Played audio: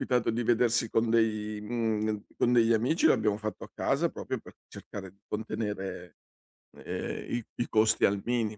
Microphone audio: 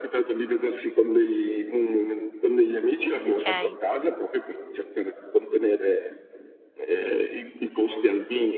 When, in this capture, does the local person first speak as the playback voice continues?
3 s

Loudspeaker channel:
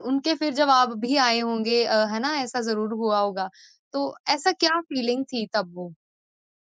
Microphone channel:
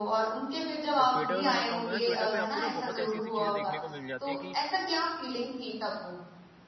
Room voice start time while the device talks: 1 s

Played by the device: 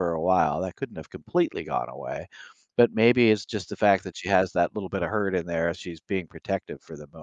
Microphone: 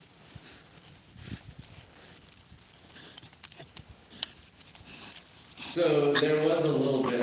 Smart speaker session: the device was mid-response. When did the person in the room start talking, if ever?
6 s

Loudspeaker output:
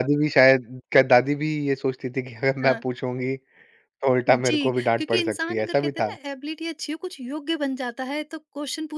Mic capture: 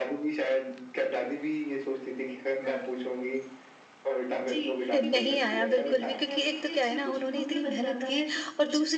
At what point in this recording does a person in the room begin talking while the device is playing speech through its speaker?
5 s

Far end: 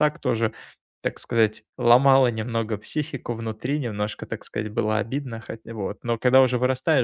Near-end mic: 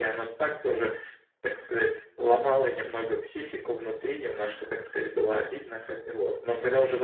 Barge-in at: none

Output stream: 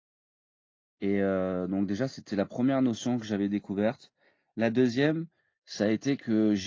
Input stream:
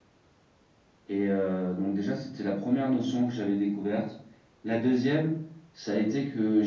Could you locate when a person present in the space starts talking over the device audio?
none

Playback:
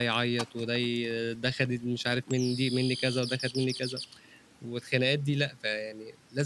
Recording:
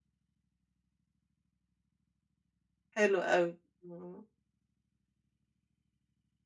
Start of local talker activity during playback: 3 s

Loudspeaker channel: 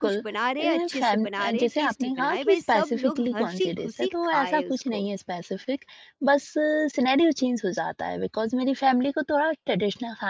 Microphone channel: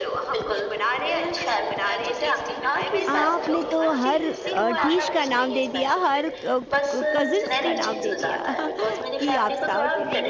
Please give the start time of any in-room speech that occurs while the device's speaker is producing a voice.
3 s

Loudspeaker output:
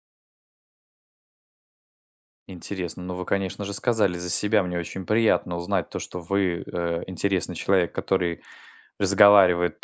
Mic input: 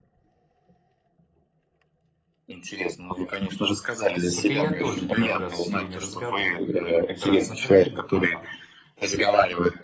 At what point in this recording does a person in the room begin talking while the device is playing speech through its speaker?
4 s

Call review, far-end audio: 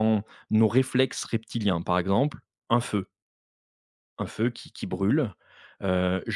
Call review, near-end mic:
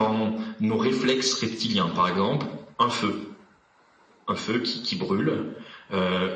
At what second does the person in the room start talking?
none

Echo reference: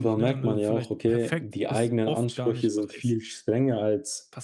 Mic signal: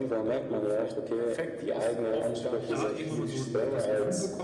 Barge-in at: 3 s

